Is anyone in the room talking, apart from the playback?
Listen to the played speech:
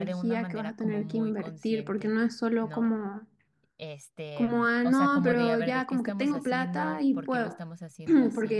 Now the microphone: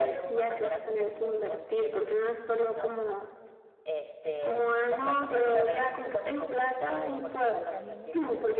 Yes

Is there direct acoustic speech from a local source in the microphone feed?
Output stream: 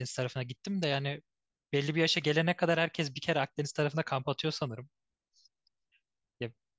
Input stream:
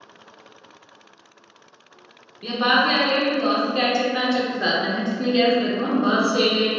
Yes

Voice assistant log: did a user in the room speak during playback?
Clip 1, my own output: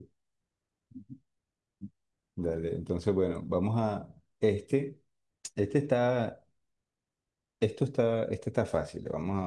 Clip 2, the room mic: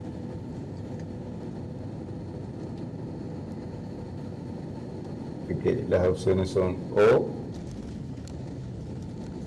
Yes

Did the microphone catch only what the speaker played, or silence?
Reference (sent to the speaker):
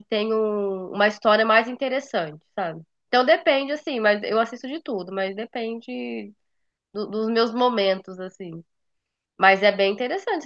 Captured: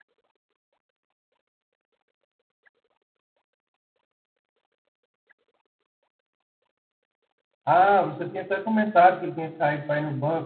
No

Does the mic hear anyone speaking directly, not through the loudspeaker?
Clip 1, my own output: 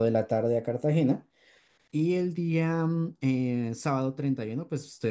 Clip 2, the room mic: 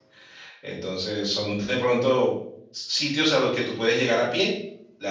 Yes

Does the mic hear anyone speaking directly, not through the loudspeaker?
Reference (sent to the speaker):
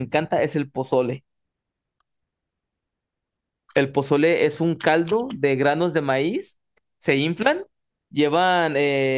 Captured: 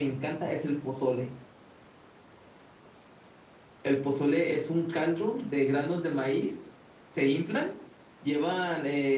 No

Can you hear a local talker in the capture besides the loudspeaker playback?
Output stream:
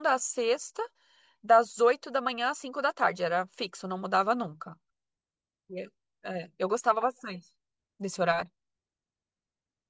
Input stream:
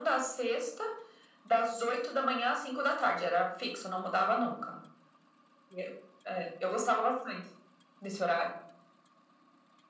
No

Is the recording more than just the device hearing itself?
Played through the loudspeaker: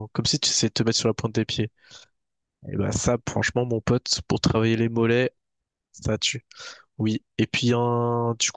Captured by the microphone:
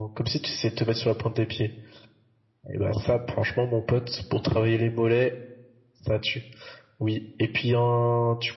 No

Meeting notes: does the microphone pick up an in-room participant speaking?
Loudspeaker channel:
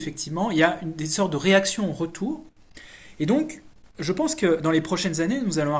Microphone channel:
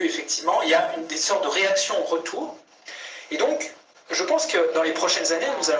Yes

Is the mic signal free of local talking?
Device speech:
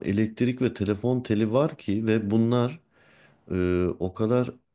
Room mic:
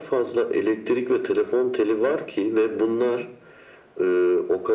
Yes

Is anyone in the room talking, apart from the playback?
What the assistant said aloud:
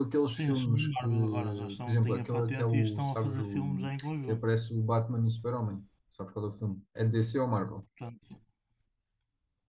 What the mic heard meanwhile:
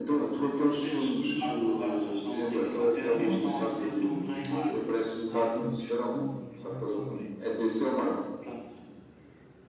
Yes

